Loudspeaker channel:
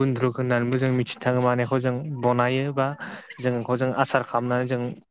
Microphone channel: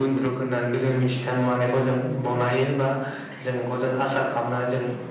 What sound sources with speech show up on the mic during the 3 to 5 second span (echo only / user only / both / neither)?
echo only